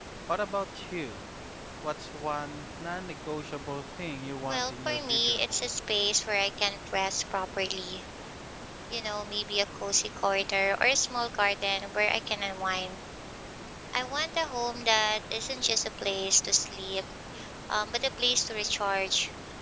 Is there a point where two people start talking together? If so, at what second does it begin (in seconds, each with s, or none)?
4.5 s